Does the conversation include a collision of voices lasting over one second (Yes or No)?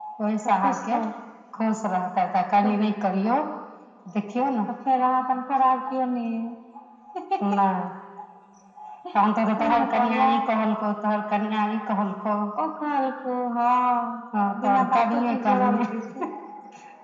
Yes